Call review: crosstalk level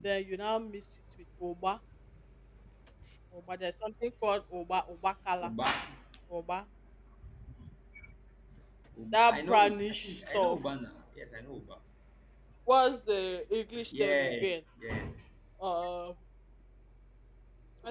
present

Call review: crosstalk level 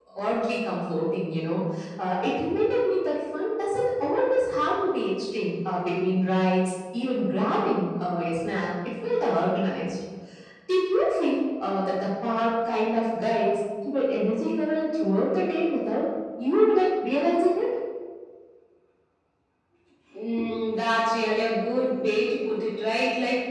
none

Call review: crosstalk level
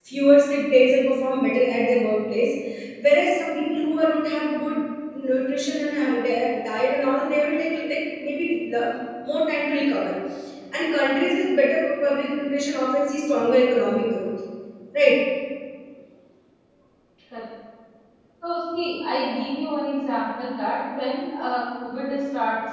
none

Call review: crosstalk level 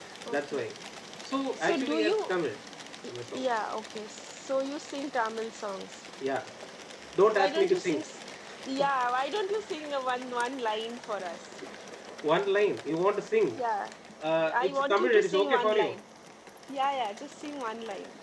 present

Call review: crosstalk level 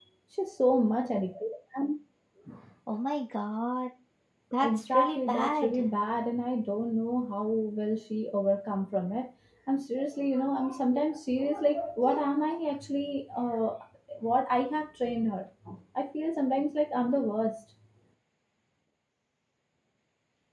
present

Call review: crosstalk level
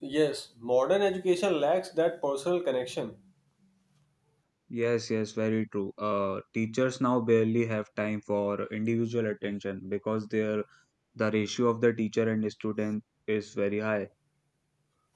none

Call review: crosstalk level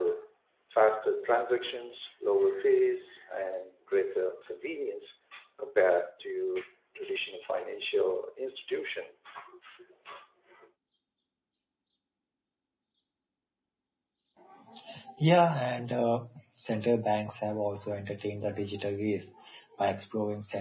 none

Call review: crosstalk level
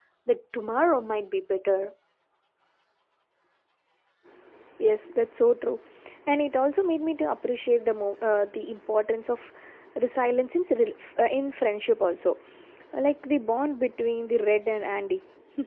none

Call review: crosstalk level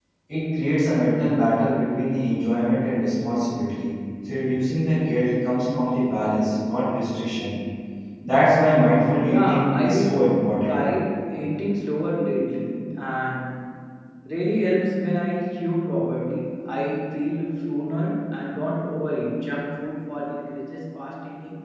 present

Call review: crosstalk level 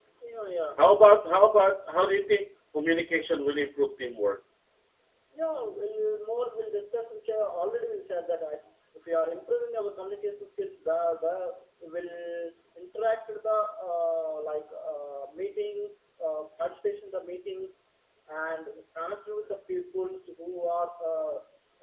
none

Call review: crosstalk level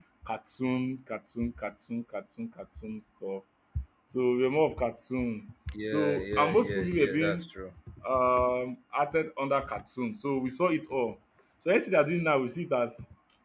present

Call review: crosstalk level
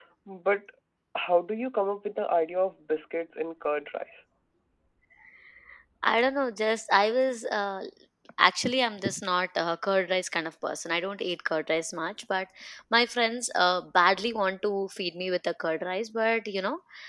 none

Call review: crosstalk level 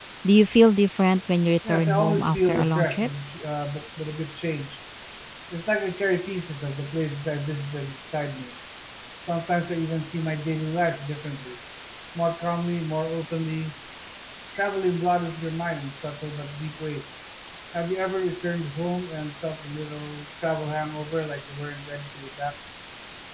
present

